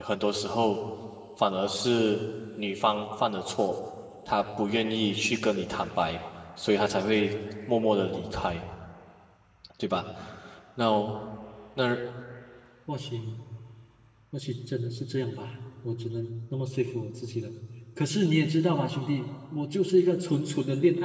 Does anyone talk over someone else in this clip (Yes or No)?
No